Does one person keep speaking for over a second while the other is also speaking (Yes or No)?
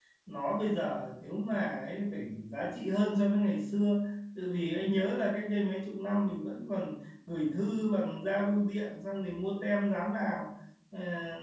No